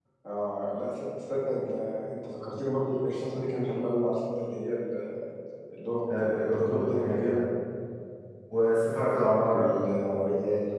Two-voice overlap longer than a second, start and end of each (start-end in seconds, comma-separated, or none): 6.2-7.4